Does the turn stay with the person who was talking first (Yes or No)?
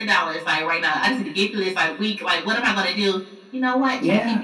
Yes